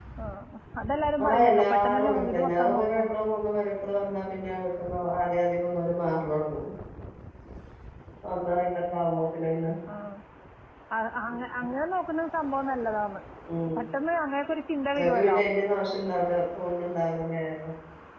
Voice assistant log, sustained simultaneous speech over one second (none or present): present